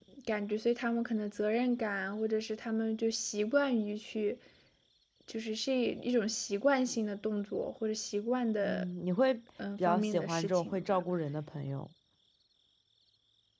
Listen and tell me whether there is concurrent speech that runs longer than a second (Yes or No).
Yes